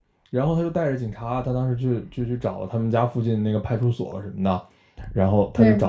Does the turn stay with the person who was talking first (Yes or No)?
Yes